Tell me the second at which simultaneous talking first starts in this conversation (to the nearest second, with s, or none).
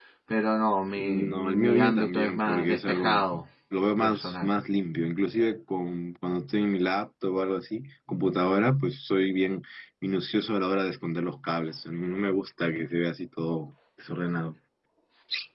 1 s